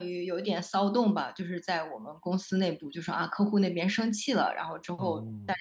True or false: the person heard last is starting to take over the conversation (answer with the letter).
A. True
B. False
B